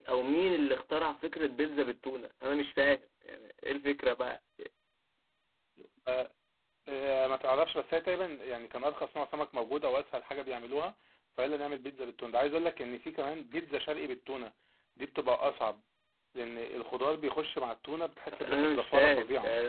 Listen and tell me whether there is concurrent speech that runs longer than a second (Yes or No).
Yes